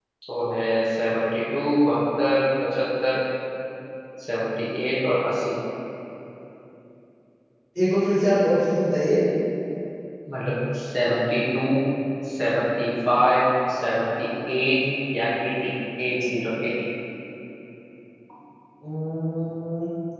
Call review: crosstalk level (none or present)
none